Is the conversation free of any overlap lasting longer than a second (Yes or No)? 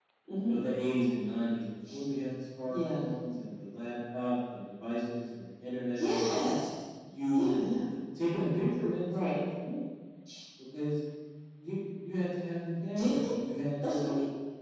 Yes